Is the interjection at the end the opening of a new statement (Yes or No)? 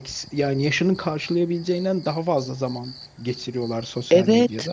Yes